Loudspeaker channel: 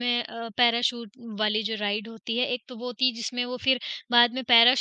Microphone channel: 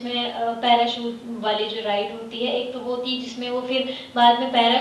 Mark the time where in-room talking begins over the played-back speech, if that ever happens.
none

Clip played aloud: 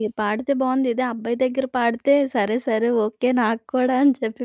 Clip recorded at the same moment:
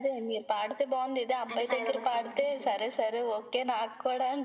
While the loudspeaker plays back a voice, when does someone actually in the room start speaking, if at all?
2 s

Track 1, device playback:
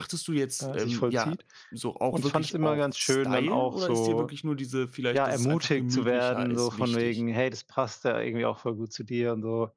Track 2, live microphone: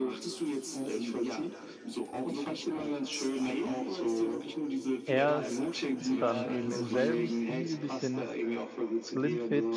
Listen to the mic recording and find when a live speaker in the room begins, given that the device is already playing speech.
5 s

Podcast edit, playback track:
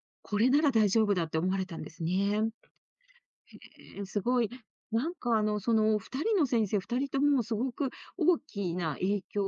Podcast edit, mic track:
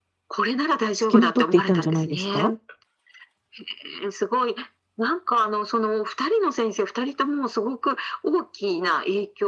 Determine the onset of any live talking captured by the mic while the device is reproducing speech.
1 s

